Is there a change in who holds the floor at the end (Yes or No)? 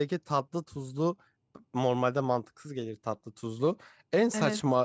No